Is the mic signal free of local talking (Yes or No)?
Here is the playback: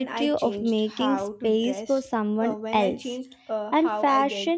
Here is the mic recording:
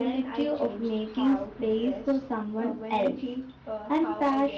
Yes